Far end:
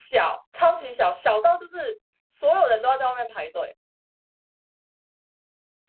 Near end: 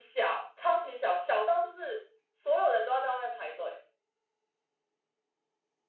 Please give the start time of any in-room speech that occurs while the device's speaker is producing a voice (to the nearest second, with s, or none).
none